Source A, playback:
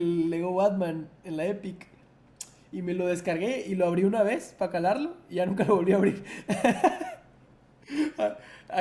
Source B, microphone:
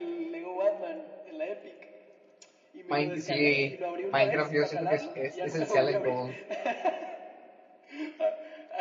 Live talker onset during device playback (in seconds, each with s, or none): 2.9 s